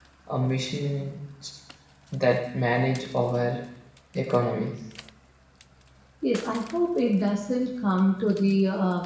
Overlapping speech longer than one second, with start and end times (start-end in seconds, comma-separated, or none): none